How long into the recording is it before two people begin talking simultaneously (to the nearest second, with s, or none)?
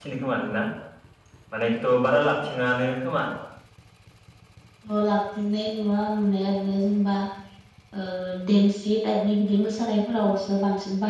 none